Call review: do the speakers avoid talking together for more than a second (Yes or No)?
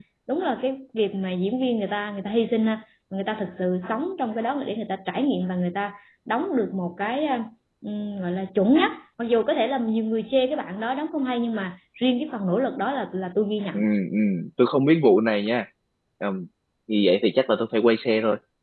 Yes